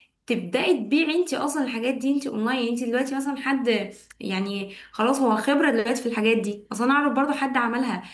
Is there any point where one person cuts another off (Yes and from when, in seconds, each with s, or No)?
No